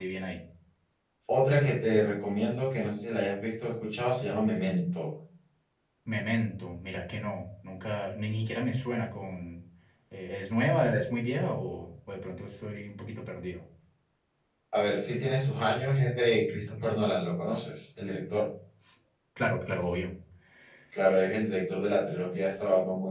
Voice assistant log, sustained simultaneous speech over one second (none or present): none